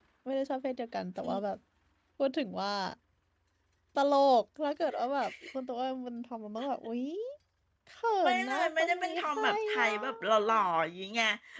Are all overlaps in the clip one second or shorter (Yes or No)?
No